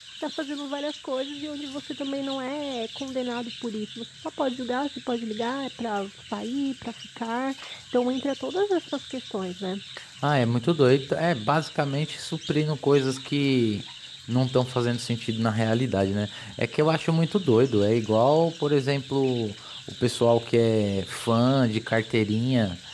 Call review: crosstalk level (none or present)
none